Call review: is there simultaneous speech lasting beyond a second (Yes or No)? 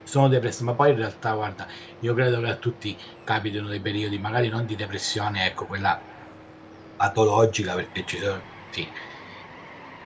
No